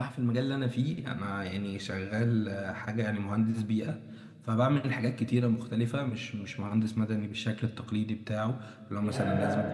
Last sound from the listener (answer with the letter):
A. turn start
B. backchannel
A